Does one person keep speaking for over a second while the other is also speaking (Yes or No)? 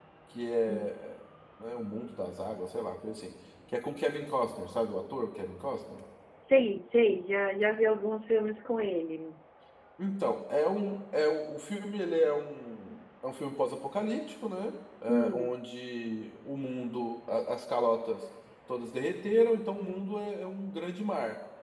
No